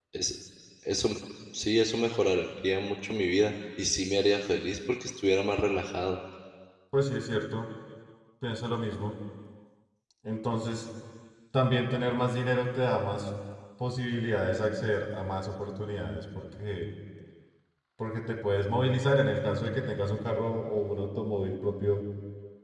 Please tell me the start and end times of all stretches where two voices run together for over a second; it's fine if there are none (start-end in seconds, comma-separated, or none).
none